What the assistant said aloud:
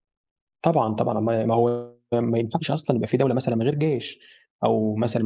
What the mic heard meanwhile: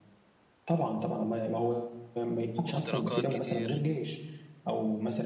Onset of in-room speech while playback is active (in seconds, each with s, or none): 2.7 s